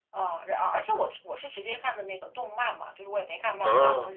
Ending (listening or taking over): listening